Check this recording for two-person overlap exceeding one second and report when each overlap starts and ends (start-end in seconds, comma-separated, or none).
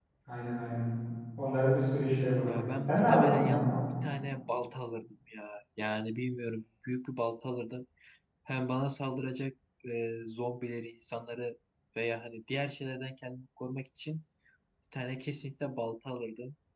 2.4-3.8